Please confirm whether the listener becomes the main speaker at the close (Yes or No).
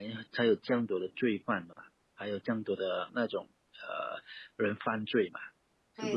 Yes